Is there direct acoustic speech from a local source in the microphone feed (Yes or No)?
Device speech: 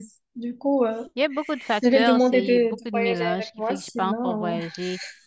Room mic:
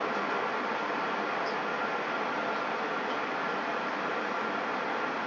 No